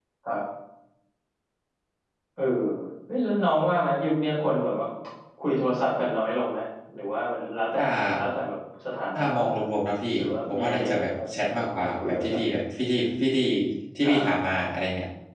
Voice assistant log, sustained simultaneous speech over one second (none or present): present